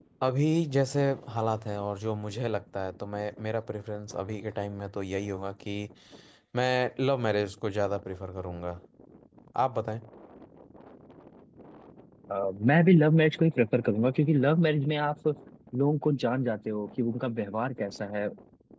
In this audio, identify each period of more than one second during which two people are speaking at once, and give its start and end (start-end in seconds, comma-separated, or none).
none